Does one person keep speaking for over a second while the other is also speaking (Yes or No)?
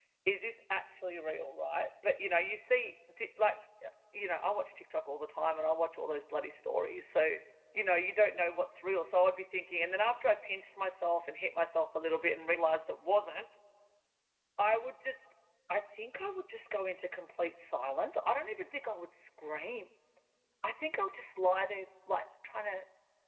No